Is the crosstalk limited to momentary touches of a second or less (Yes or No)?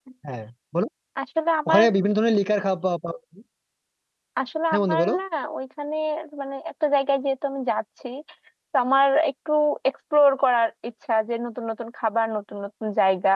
Yes